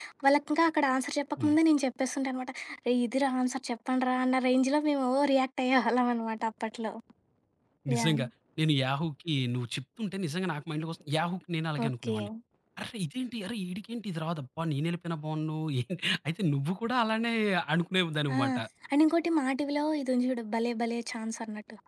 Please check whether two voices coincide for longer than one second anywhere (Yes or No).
No